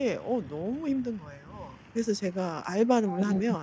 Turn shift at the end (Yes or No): No